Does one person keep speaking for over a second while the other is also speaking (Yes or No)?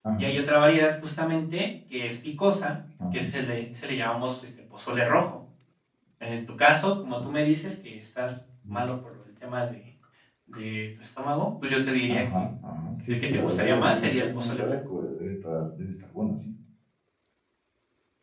Yes